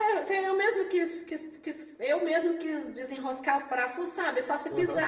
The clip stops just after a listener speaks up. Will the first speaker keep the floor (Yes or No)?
Yes